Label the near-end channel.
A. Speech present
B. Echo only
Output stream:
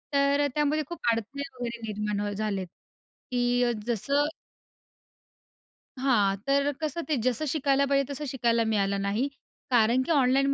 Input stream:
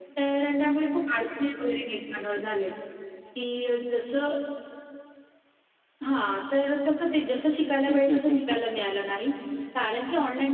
A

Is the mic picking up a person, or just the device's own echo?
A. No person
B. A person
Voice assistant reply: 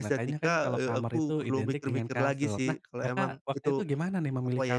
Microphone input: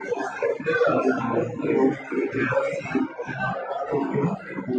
A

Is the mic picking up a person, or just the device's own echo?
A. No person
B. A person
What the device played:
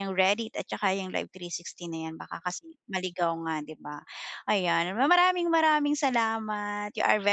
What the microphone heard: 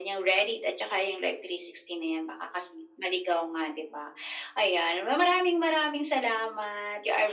A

